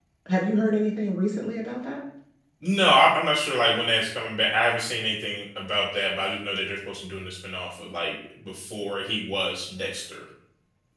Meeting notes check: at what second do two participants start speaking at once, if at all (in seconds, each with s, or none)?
none